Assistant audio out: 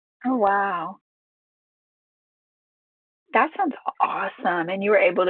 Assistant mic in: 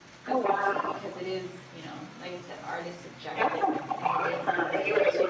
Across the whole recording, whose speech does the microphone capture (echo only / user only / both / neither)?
both